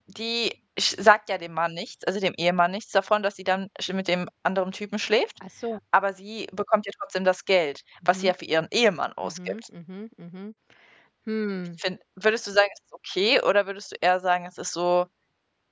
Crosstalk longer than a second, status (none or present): none